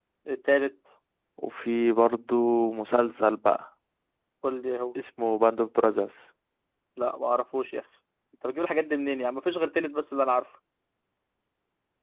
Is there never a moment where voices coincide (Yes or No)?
Yes